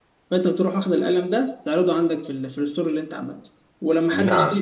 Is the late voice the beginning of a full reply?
No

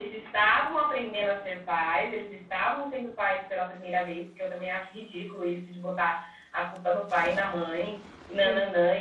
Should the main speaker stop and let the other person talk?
No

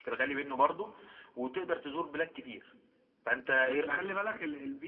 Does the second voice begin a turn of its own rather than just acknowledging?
Yes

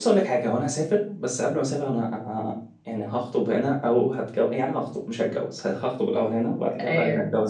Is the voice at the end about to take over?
No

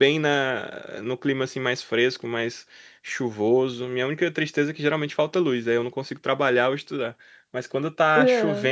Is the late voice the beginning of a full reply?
No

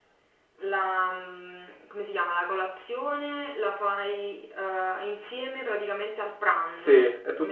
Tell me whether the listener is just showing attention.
No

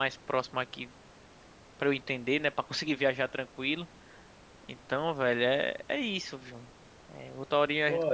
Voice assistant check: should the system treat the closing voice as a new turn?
No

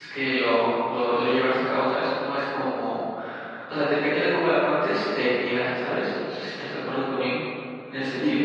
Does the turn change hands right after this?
Yes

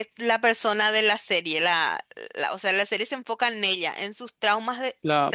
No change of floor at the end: Yes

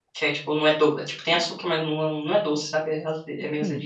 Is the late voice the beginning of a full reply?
Yes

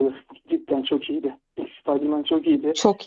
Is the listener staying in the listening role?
Yes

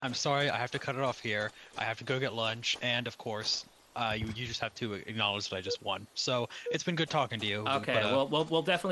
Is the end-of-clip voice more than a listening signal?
Yes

